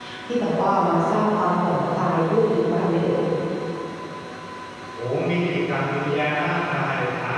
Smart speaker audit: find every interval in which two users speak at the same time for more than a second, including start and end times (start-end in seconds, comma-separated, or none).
none